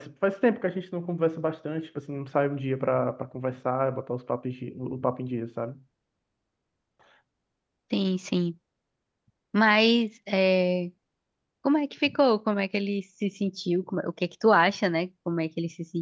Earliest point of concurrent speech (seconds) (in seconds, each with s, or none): none